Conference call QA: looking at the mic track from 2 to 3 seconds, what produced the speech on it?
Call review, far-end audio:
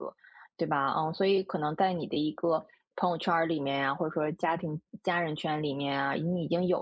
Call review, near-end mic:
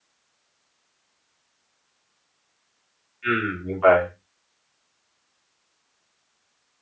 neither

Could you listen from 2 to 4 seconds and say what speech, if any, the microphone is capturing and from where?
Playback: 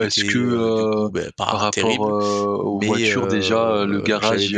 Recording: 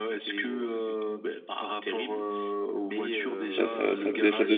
both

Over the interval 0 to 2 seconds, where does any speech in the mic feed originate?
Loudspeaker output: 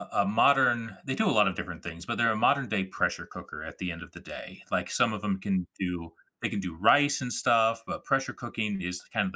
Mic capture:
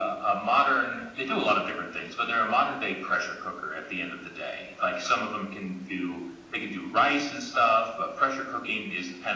echo only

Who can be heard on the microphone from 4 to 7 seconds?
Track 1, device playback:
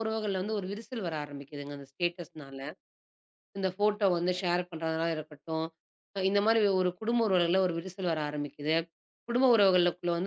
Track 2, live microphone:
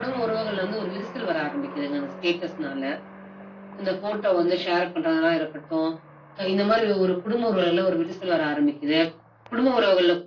echo only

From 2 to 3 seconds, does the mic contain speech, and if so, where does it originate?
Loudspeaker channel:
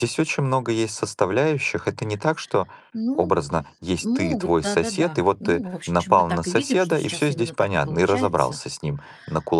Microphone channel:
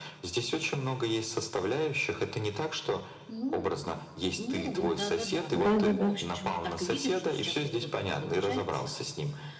echo only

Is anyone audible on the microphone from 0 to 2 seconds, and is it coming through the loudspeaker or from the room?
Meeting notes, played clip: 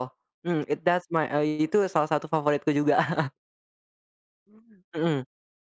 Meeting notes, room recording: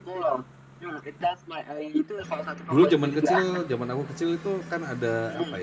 echo only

